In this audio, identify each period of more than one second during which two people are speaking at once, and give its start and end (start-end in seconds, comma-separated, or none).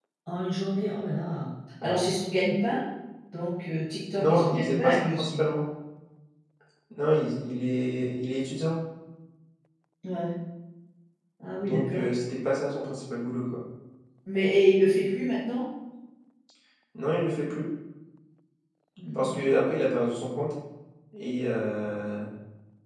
4.2-5.4